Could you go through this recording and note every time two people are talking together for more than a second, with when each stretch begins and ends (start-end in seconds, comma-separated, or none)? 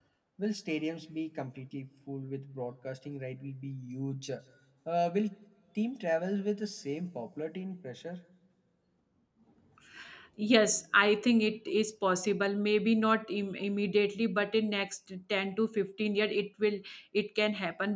none